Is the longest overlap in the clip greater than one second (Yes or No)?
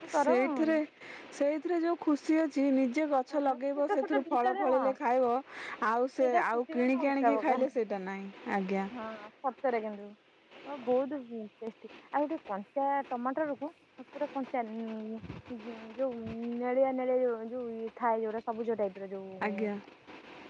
Yes